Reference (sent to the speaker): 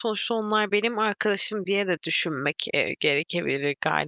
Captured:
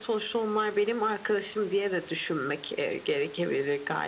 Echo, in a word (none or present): present